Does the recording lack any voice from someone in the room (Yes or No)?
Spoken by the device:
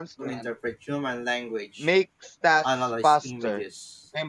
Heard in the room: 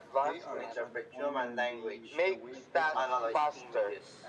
No